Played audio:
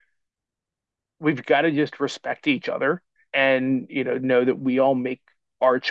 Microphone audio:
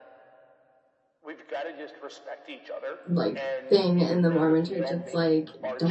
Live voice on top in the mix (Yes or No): Yes